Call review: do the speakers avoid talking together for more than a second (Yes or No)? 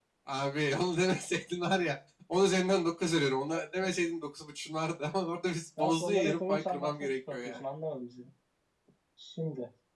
No